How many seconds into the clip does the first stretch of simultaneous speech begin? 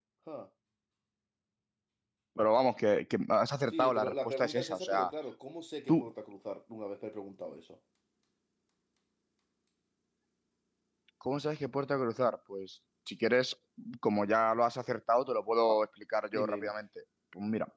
3.7 s

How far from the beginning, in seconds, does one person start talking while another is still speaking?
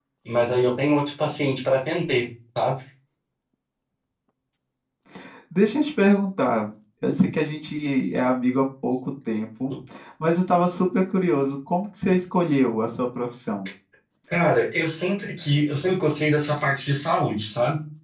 none

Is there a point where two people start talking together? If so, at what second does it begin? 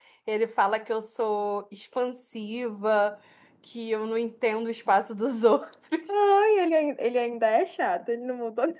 none

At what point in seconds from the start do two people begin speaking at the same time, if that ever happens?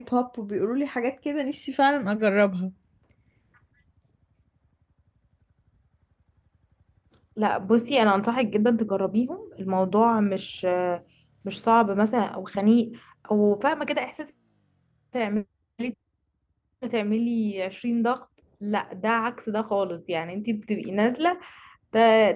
none

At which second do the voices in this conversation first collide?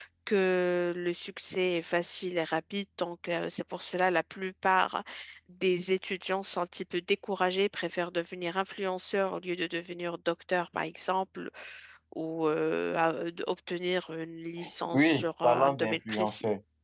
14.6 s

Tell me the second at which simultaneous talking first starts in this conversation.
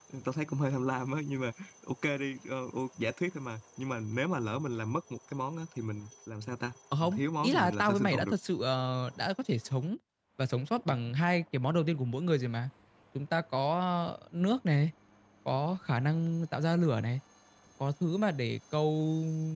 6.9 s

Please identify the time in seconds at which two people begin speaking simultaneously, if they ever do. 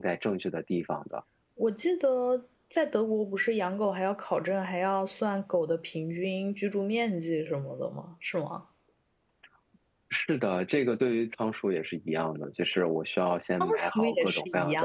13.6 s

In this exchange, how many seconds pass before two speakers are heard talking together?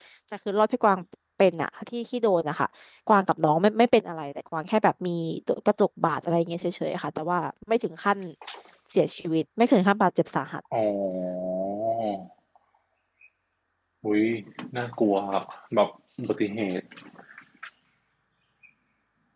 none

